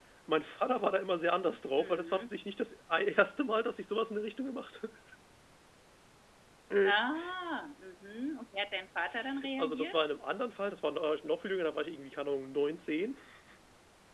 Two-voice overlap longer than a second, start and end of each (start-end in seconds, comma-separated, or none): none